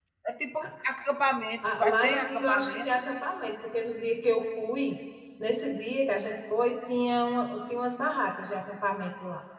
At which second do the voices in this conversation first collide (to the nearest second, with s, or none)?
2 s